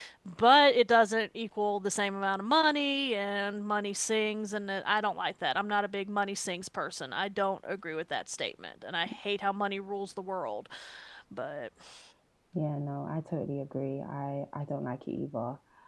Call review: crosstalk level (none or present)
none